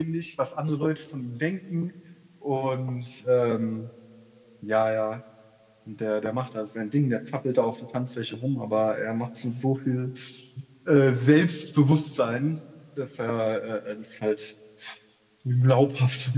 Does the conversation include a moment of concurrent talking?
No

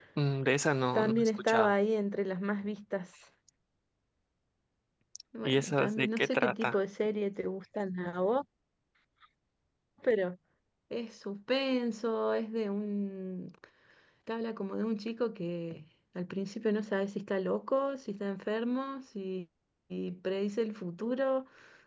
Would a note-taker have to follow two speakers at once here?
Yes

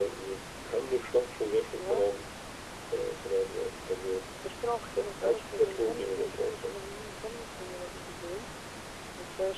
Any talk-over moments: Yes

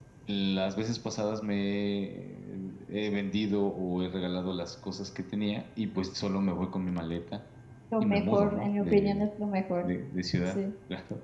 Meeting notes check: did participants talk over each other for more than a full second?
Yes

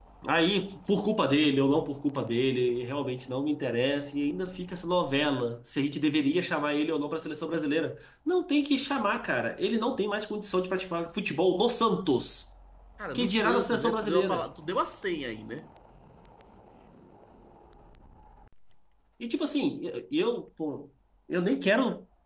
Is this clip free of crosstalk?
No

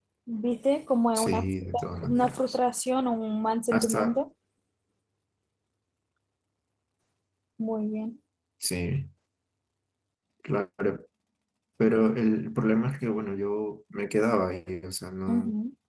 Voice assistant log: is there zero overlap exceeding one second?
No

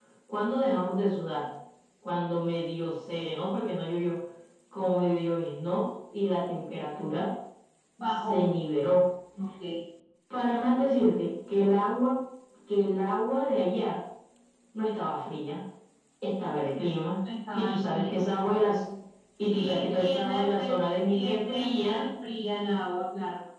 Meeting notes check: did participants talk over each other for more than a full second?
Yes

